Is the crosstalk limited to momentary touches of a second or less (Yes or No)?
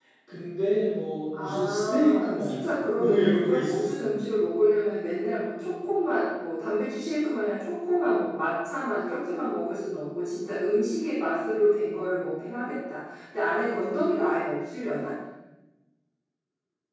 No